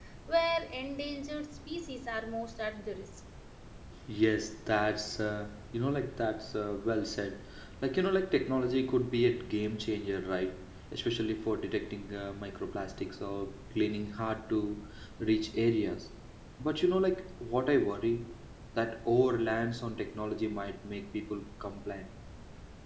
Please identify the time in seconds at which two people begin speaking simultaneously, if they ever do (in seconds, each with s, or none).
none